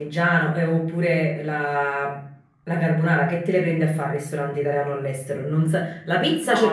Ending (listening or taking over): listening